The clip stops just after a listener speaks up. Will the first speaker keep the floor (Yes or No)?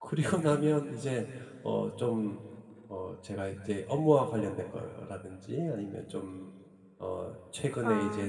Yes